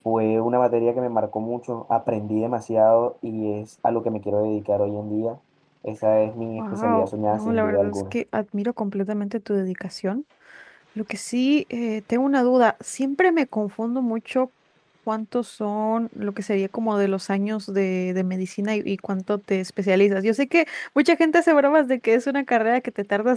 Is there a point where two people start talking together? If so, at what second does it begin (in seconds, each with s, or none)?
6.6 s